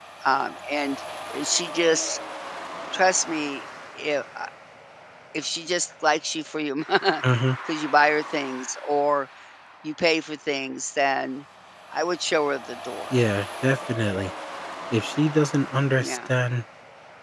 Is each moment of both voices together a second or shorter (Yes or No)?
Yes